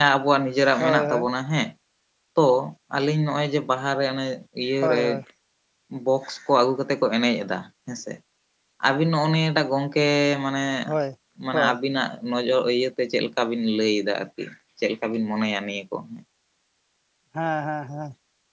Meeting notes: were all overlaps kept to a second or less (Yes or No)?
Yes